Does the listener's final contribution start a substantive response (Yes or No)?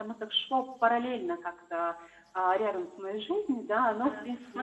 Yes